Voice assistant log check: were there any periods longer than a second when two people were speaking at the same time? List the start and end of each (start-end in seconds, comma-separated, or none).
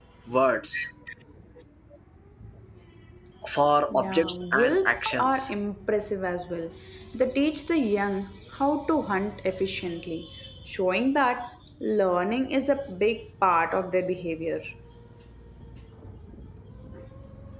3.9-5.5